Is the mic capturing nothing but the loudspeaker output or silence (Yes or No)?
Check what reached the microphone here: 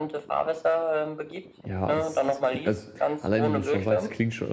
No